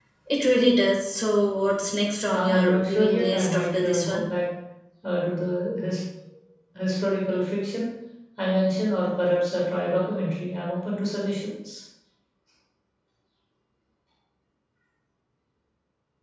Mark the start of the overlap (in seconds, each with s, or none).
2.3 s